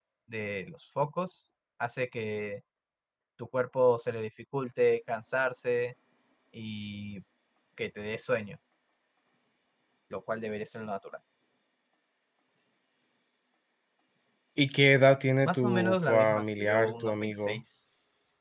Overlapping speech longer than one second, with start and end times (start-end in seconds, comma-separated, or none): 15.5-17.6